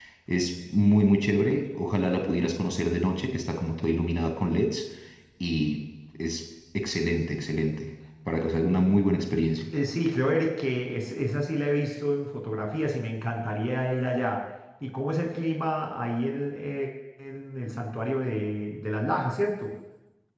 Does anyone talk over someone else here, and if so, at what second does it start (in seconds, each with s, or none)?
none